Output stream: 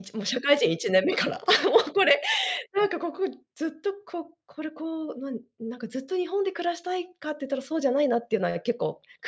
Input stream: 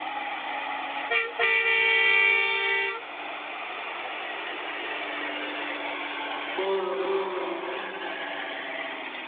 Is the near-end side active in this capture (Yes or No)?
Yes